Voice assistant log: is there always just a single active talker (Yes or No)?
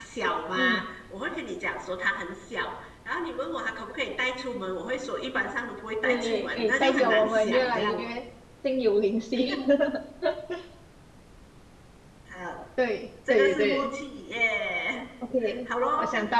No